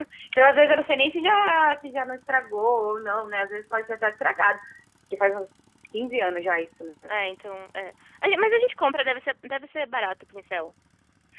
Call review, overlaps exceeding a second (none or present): none